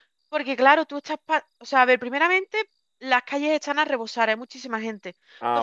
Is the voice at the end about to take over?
No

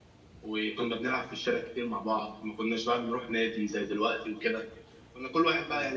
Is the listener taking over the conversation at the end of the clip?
No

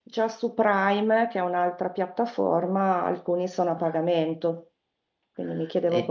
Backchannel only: No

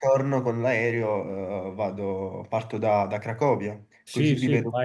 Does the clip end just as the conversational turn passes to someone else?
Yes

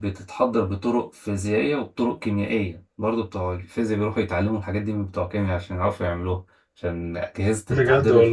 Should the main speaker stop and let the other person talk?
No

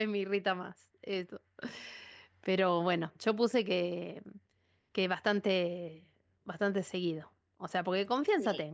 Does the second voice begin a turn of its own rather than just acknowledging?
No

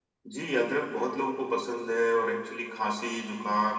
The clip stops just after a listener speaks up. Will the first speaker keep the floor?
Yes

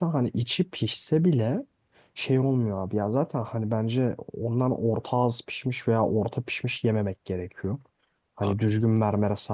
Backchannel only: Yes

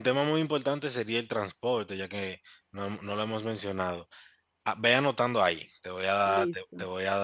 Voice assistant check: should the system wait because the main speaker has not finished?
Yes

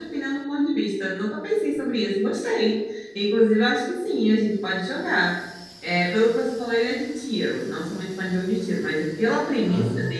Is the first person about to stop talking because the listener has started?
No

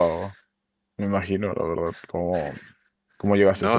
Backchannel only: No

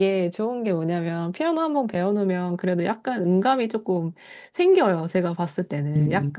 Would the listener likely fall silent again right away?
No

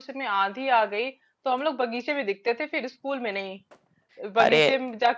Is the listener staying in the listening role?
Yes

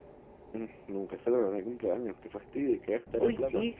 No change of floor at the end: No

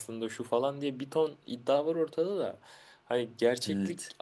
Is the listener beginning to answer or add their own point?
No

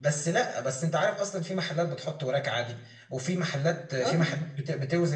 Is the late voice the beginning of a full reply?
No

